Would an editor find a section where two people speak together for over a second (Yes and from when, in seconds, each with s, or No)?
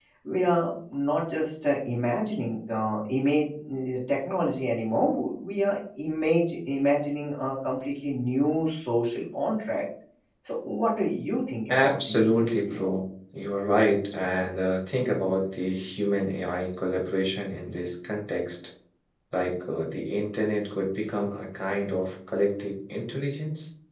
Yes, from 11.7 s